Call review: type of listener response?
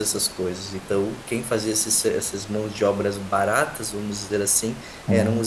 listening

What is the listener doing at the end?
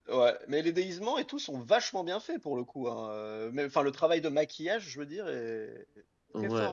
taking over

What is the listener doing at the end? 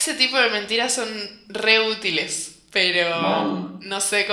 listening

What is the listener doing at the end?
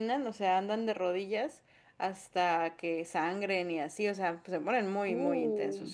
listening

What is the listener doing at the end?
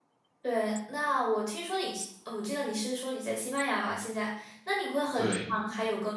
listening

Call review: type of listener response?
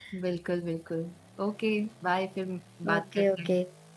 taking over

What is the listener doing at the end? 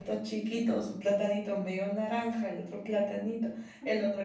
listening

